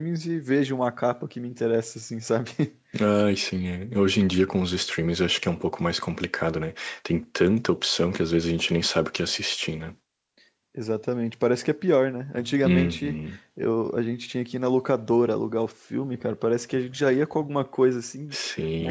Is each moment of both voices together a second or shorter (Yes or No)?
Yes